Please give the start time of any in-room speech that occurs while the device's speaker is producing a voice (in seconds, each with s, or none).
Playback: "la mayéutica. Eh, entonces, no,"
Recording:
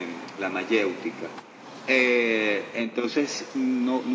none